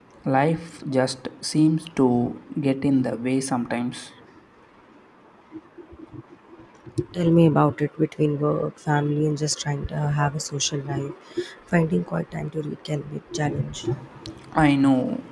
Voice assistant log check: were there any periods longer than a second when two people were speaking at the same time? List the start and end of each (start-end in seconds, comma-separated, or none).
none